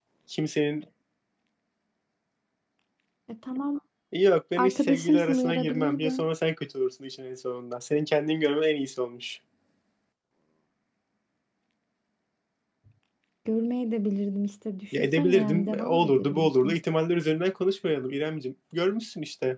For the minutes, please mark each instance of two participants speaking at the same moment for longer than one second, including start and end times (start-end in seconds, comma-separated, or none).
4.6-6.2, 15.0-16.8